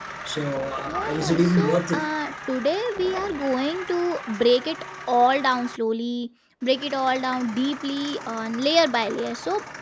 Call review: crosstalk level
present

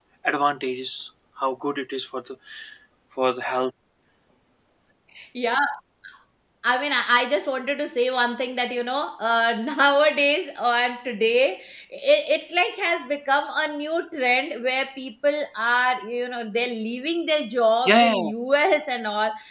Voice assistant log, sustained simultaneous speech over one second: none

